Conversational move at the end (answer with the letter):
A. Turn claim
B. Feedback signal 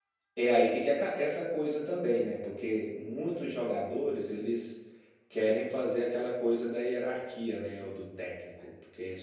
B